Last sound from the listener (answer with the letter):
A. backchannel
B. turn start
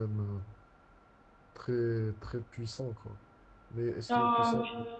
B